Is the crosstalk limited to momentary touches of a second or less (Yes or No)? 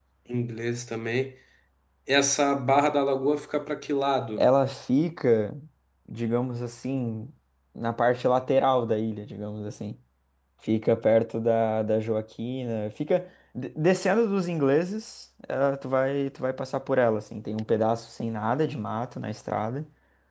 Yes